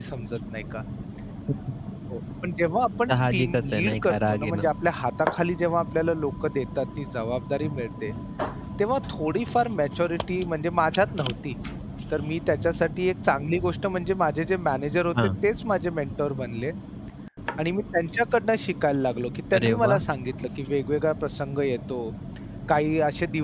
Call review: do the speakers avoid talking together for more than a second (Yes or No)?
No